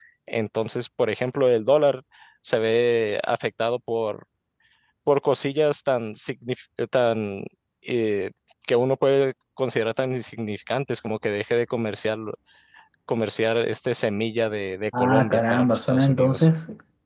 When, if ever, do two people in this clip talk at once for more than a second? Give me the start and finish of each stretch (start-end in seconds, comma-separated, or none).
15.0-16.5